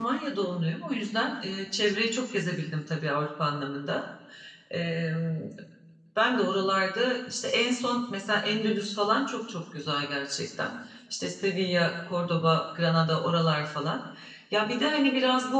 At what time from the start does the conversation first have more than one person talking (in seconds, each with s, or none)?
none